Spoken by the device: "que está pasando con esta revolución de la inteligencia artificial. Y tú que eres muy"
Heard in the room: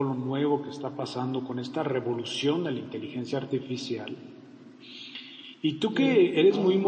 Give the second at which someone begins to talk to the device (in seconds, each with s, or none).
5.9 s